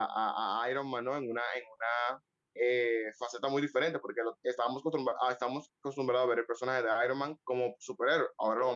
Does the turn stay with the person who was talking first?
Yes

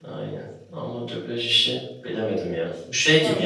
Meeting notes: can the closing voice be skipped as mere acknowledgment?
Yes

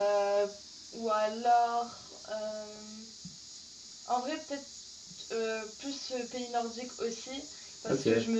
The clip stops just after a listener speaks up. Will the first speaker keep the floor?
Yes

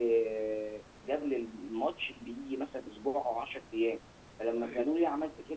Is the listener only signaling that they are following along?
Yes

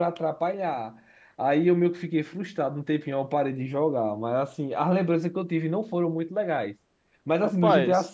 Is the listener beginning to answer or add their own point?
No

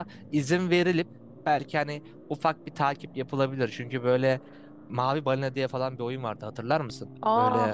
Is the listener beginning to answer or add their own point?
Yes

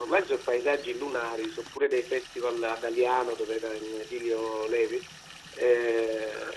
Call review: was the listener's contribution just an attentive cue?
Yes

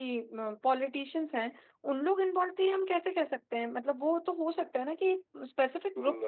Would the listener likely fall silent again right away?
No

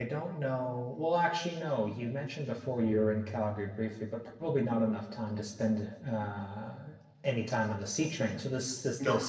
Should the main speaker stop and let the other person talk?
No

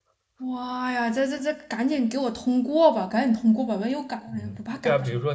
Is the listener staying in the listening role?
No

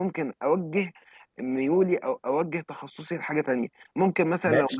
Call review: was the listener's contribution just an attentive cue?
No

